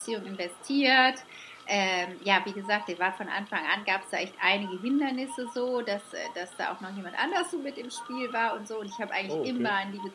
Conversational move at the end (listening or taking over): listening